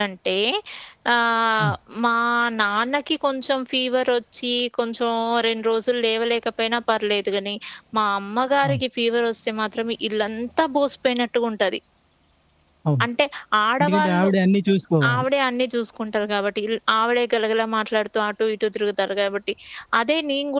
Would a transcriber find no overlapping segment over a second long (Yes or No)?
Yes